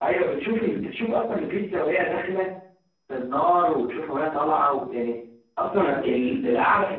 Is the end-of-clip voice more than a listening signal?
No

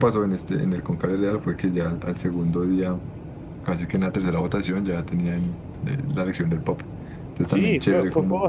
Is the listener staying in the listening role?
No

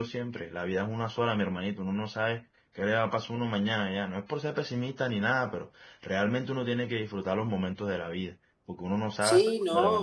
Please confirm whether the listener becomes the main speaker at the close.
Yes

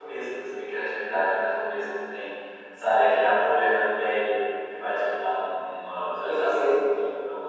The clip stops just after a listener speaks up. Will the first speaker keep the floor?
No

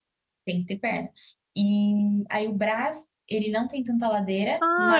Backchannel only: No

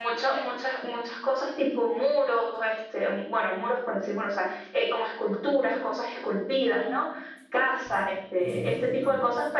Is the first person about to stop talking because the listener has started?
No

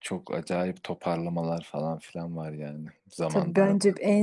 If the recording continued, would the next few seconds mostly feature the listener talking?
Yes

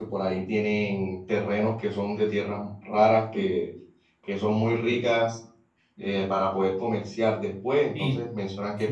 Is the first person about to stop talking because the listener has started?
Yes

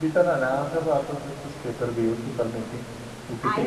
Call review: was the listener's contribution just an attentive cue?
No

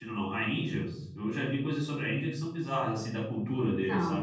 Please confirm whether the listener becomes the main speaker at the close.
No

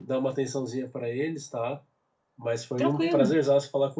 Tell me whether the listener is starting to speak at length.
No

